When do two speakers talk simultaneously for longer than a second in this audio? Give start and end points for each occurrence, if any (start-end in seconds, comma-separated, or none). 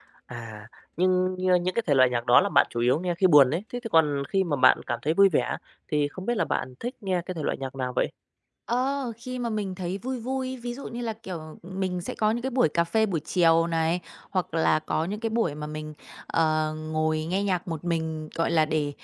none